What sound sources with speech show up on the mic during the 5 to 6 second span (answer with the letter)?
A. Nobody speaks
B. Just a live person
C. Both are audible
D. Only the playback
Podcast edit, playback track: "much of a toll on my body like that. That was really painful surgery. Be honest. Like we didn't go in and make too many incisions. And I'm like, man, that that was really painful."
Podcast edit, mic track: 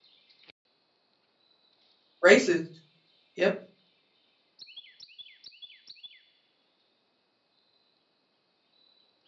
A